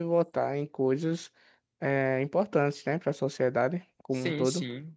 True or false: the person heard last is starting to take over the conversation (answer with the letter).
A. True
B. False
A